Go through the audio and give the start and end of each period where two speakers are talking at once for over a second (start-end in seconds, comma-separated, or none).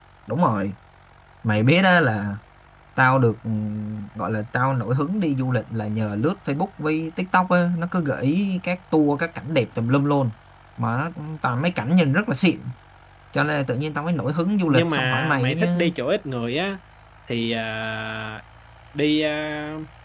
14.7-15.9